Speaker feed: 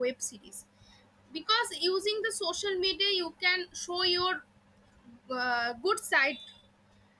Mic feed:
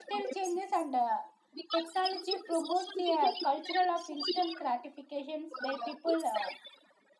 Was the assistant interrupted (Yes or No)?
Yes